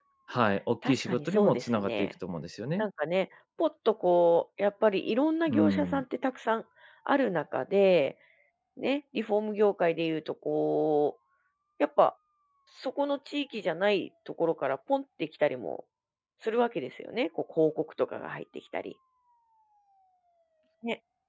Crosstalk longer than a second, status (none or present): present